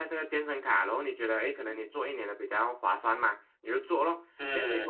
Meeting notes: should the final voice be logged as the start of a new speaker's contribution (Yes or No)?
No